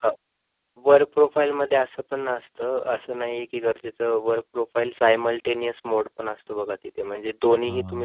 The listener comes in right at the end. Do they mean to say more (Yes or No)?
No